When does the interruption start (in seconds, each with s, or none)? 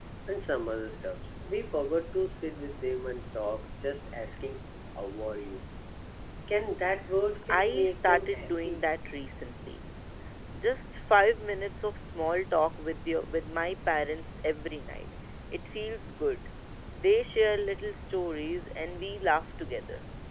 7.5 s